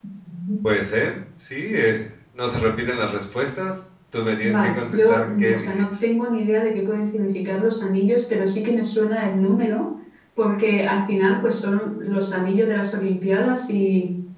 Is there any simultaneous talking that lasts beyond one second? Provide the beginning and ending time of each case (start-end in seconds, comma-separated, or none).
4.5-5.8